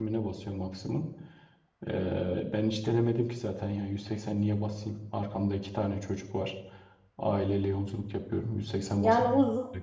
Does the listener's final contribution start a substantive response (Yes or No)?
Yes